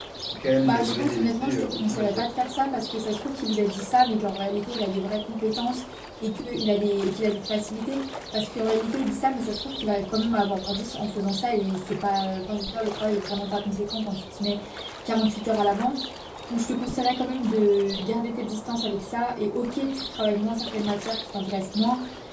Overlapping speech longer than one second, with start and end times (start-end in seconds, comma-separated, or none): 0.6-2.2